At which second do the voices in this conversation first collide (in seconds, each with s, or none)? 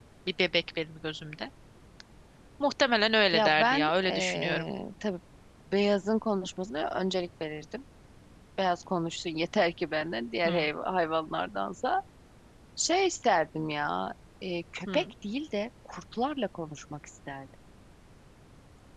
3.3 s